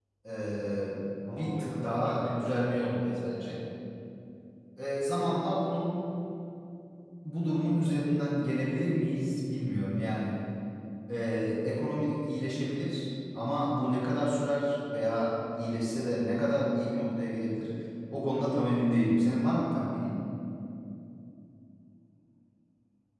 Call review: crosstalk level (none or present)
present